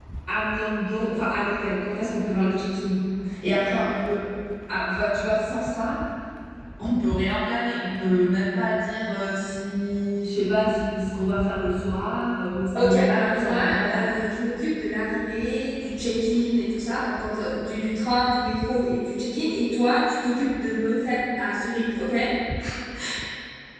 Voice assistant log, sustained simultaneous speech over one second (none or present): present